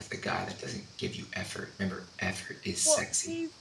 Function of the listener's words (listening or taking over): taking over